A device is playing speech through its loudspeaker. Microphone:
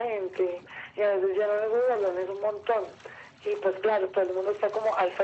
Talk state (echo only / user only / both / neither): echo only